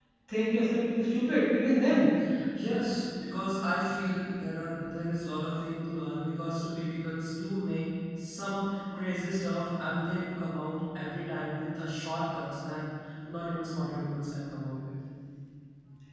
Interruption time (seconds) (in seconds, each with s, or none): none